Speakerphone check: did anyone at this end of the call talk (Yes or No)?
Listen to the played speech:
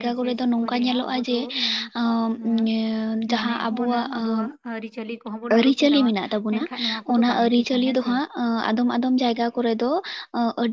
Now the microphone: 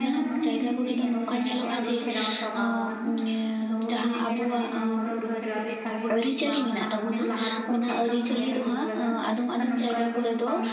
Yes